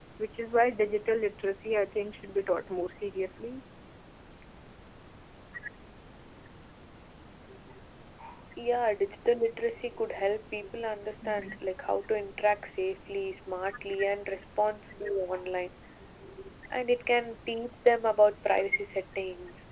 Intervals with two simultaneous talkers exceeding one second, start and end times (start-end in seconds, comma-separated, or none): none